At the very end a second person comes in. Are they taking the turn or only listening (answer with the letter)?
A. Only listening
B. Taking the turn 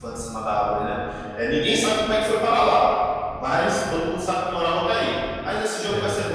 A